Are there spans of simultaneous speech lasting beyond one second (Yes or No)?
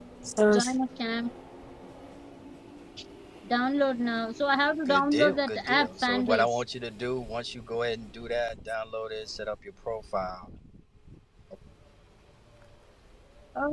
Yes